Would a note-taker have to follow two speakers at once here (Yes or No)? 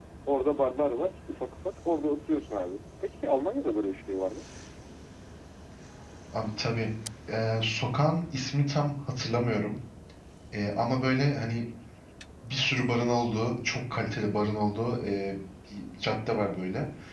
No